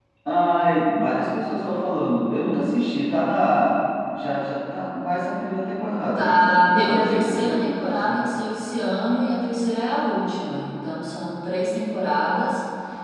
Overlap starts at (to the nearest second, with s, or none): 6 s